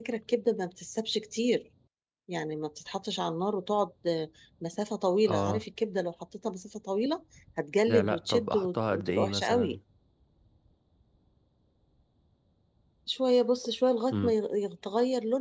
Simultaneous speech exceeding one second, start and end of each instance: 7.9-9.8

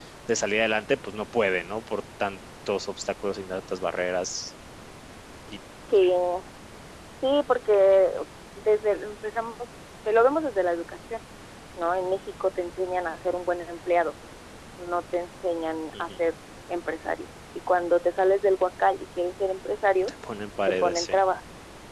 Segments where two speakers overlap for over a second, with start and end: none

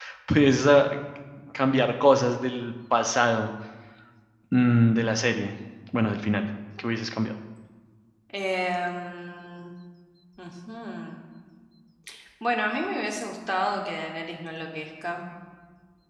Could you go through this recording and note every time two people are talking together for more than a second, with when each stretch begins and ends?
none

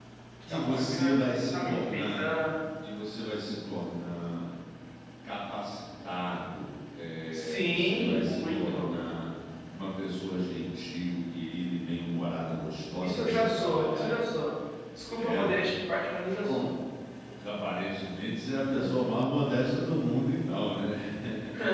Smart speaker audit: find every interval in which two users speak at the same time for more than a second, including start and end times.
0.5-2.3, 7.3-8.9, 13.0-14.3

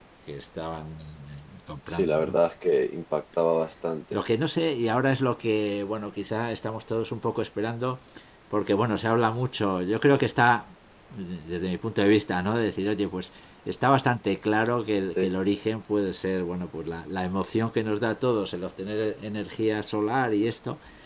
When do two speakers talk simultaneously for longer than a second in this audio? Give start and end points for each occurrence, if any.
none

